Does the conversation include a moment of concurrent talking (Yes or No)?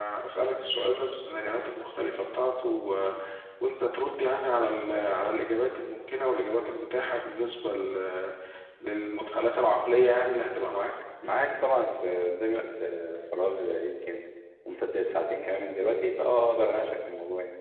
No